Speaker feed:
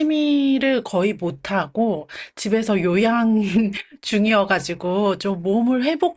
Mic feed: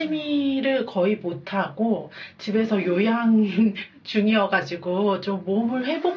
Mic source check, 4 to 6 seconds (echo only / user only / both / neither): echo only